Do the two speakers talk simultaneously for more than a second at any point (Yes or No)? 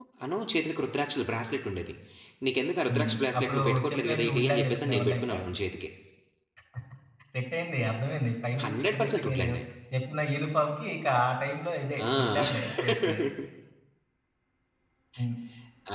Yes